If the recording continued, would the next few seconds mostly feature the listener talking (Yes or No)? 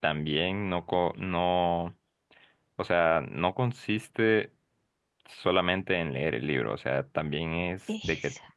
No